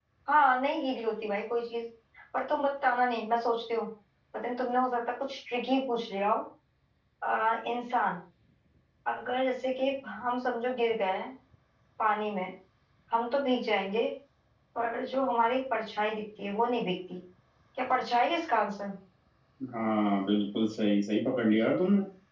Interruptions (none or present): none